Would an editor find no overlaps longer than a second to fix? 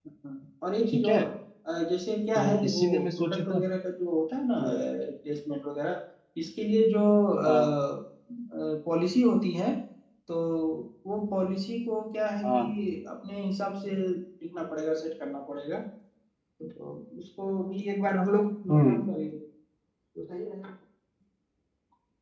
No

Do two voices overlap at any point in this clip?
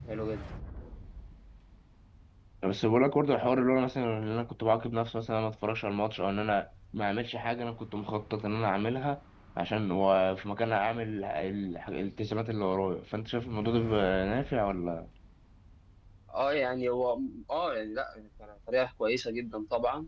No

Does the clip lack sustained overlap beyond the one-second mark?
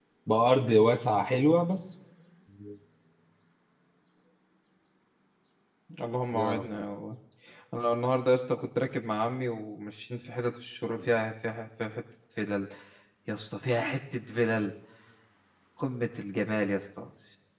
Yes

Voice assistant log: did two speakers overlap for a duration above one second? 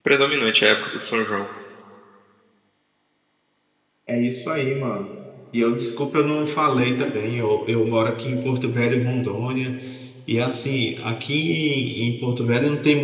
No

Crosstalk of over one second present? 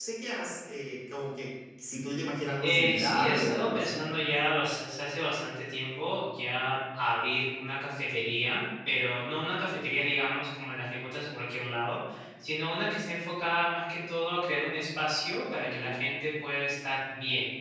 Yes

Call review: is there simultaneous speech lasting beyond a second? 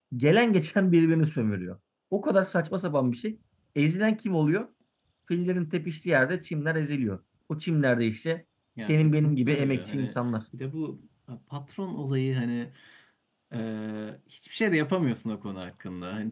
Yes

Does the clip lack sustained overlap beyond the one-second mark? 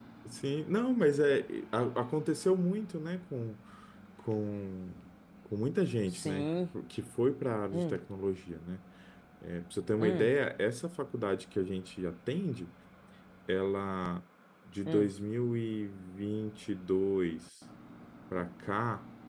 Yes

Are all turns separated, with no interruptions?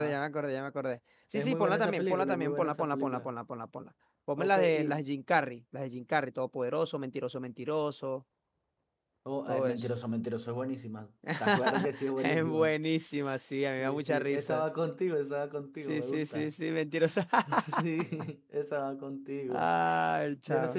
No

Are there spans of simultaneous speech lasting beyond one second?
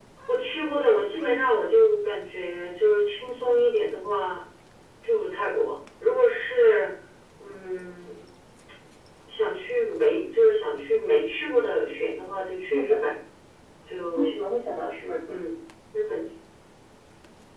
No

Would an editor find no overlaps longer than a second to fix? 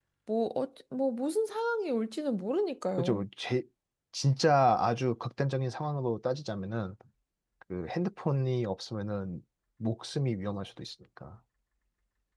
Yes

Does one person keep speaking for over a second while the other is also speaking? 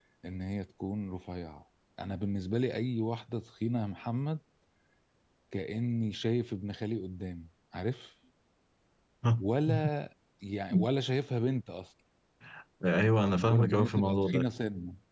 Yes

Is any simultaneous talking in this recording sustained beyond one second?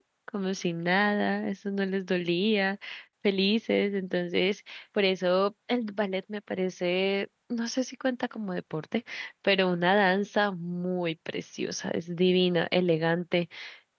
No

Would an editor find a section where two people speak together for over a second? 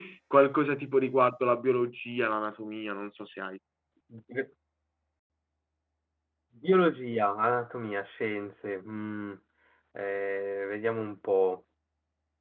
No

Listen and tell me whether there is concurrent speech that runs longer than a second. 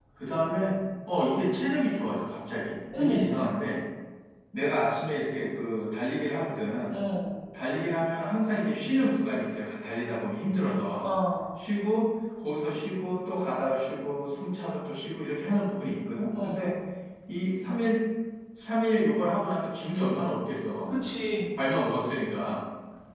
No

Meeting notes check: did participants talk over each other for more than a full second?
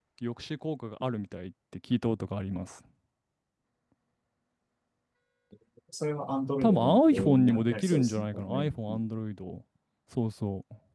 Yes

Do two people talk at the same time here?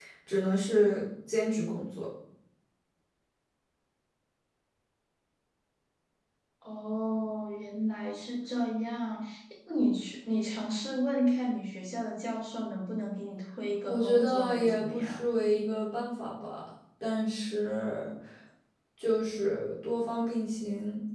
Yes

